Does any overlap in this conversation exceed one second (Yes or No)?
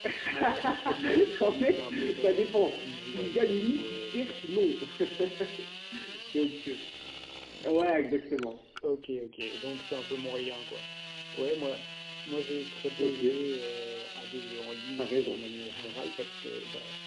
Yes